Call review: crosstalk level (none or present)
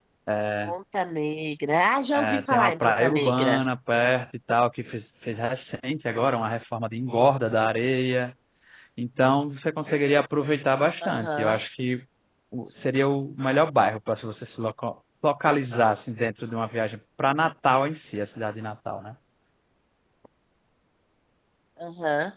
present